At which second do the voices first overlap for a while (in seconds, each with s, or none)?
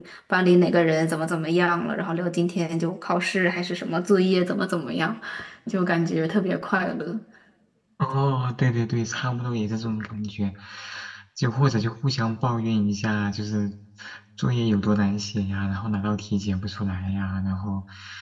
none